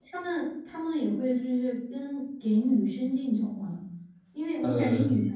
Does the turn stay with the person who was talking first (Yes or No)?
Yes